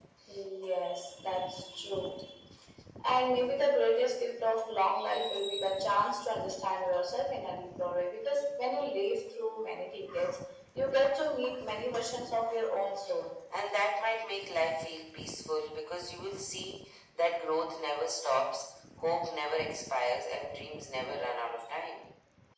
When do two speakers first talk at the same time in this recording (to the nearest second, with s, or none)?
none